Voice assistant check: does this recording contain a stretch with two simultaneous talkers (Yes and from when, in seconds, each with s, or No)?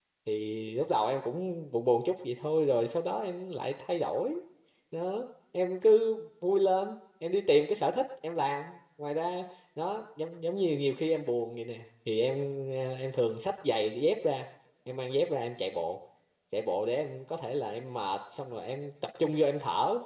No